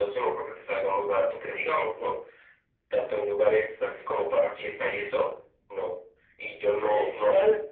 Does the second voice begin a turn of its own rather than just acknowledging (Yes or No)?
Yes